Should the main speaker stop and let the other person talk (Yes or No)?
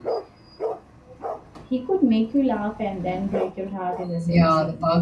Yes